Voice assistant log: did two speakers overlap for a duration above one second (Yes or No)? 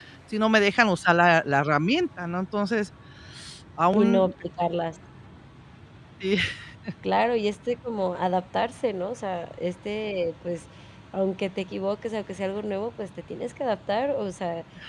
No